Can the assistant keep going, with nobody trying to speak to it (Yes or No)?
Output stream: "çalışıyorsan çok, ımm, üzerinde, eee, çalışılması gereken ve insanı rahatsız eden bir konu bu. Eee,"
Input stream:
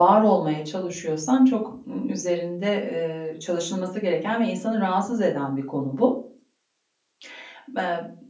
Yes